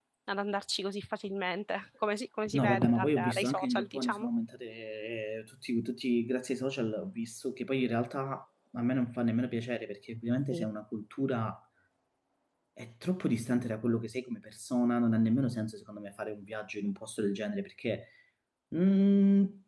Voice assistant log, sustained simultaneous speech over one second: present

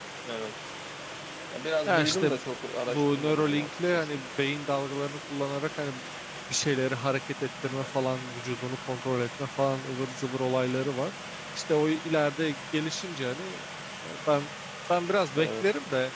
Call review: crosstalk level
present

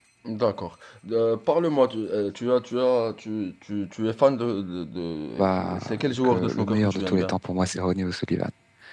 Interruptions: present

